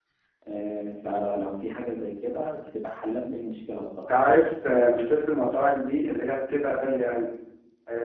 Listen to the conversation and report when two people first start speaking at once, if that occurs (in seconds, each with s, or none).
none